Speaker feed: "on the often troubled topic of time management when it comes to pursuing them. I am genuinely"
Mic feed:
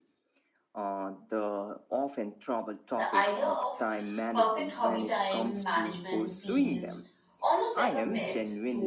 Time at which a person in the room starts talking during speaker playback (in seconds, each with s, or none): 2.9 s